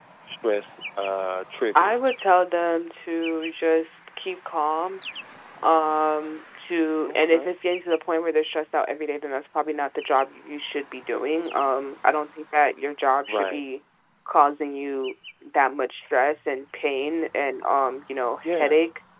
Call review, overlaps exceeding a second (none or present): none